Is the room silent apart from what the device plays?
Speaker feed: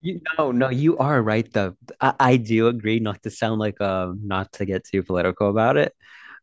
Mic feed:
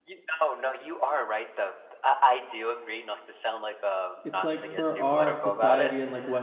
No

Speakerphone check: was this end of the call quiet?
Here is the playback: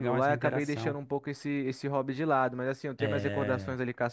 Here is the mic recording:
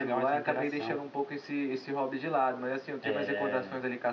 Yes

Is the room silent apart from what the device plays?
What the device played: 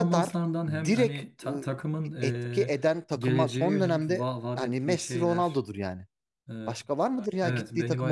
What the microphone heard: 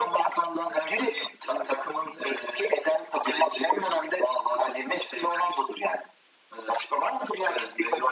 Yes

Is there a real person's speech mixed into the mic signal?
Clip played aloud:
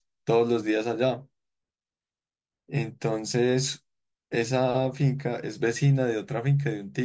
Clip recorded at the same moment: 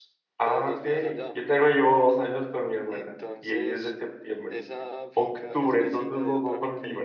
Yes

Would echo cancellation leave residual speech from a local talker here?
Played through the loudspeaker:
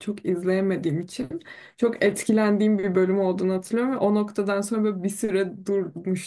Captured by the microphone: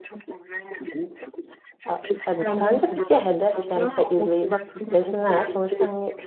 Yes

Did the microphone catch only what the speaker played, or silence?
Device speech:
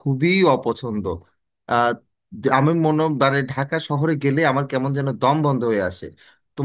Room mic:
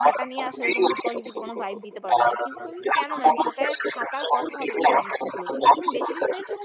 No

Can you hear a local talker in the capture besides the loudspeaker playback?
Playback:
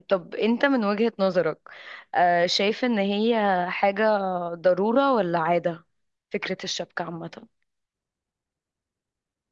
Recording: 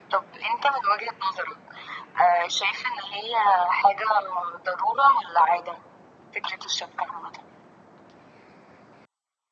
No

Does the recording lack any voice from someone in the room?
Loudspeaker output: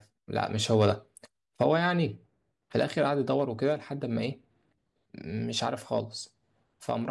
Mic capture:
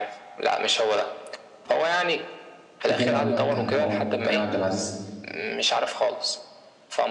No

